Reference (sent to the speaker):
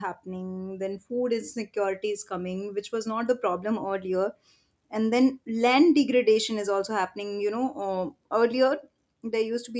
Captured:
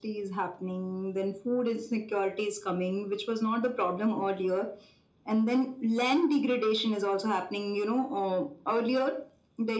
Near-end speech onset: none

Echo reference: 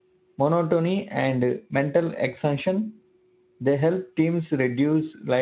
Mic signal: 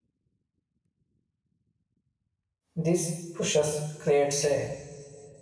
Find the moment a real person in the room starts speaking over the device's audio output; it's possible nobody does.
2.8 s

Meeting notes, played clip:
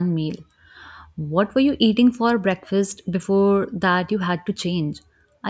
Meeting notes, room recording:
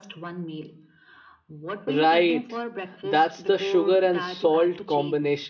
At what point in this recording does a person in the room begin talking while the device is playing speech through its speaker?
1.9 s

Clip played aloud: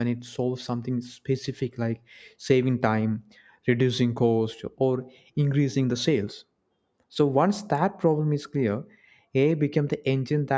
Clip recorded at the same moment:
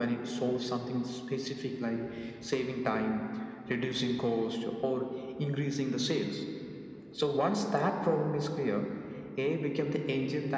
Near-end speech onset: none

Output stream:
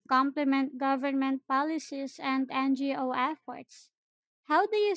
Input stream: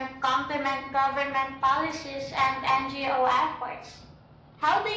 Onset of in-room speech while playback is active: none

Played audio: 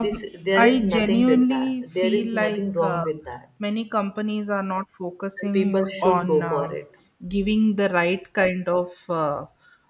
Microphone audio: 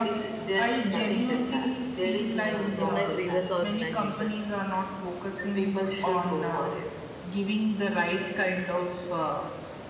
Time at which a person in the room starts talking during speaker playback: 2.5 s

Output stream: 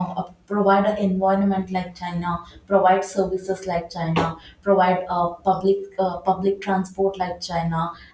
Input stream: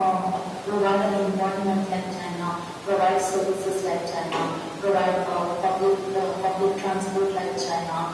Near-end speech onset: none

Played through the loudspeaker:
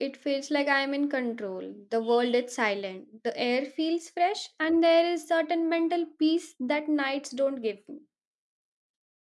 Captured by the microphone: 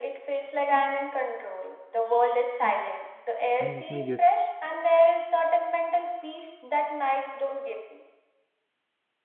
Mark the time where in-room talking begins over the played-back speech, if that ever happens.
3.6 s

